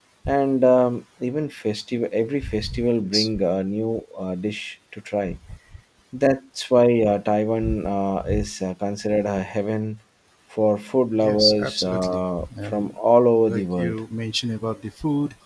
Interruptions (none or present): present